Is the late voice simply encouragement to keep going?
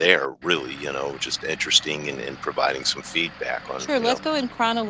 No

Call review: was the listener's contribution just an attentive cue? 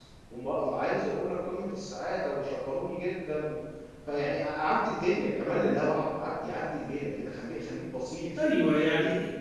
No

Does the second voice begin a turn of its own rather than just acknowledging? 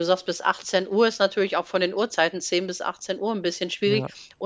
No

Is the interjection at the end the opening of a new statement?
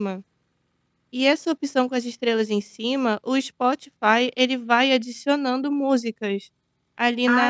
Yes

